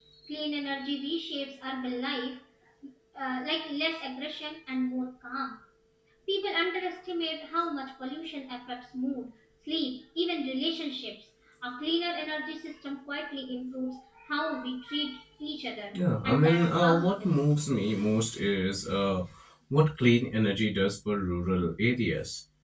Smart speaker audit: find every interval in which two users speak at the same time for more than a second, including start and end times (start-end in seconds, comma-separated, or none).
15.9-17.4